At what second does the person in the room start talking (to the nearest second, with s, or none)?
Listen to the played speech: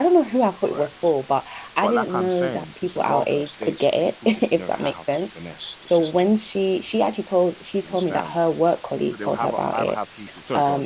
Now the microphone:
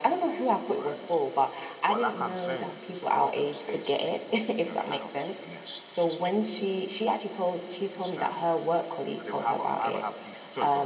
none